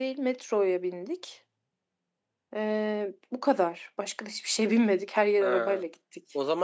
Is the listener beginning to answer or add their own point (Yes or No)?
Yes